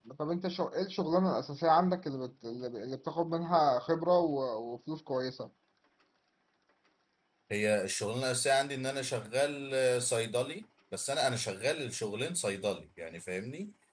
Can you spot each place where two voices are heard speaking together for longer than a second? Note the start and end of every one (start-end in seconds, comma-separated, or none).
none